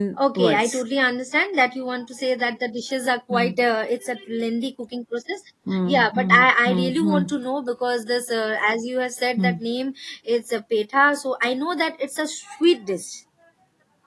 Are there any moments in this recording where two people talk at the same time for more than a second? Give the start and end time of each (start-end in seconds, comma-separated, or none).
5.9-7.2